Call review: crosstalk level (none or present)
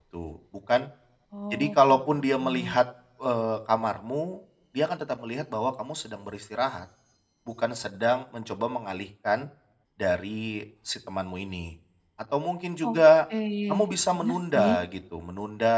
present